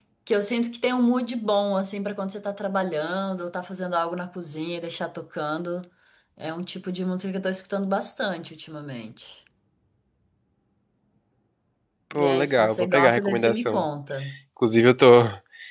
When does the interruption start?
12 s

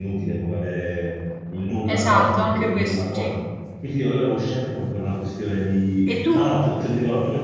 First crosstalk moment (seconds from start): 2 s

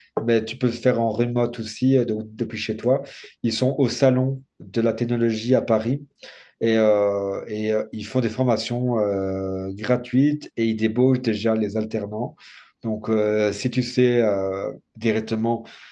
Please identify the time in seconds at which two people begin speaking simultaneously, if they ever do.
none

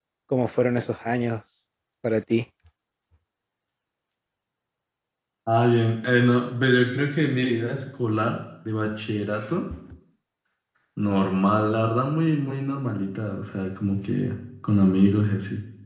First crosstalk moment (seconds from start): none

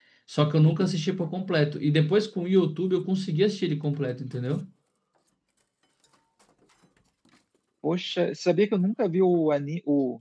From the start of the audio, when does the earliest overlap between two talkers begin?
none

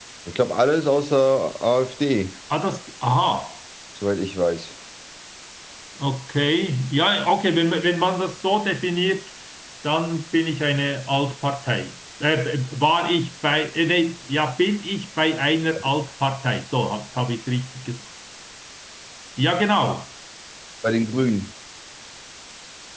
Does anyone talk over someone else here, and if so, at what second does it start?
none

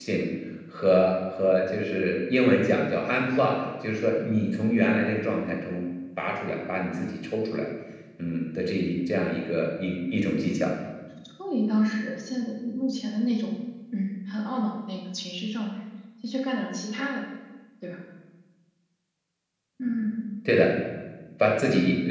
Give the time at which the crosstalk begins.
none

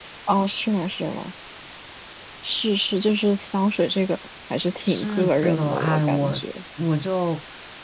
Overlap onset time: 5 s

